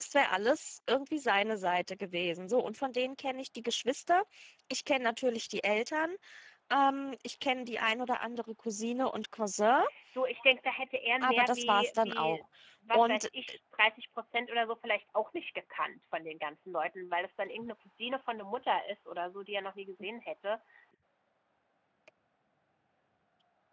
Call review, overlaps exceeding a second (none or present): present